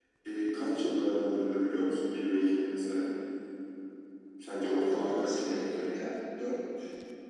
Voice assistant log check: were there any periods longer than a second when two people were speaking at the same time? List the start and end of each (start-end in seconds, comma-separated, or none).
4.6-5.8